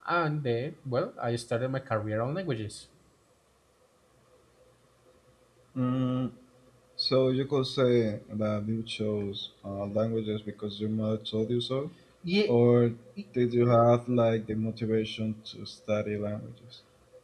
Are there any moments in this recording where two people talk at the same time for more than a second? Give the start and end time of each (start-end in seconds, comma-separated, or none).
none